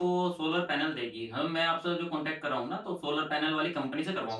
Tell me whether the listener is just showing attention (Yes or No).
Yes